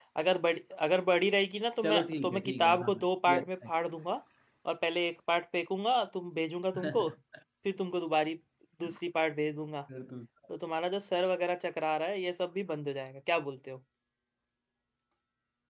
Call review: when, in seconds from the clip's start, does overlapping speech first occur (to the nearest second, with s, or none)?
2 s